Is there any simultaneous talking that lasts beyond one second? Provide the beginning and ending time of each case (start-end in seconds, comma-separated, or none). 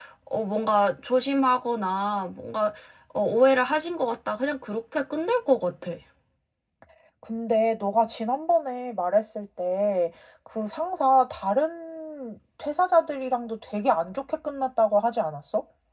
none